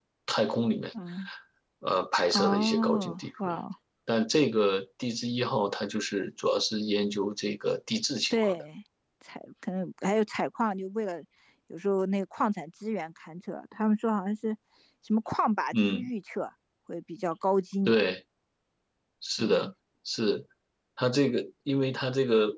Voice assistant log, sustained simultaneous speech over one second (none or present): present